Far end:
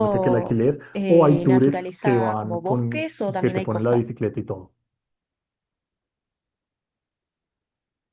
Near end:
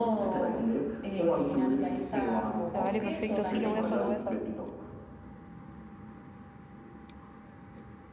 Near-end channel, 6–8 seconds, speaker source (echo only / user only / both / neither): neither